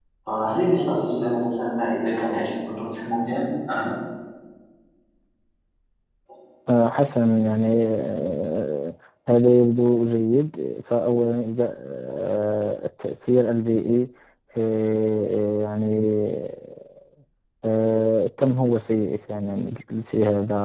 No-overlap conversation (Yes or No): Yes